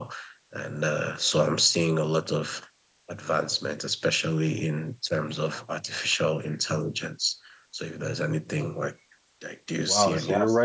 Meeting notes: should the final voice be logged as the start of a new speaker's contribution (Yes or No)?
Yes